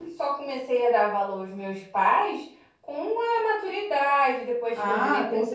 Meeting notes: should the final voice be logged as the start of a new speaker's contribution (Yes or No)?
Yes